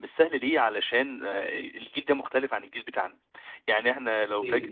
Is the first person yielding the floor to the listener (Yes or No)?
No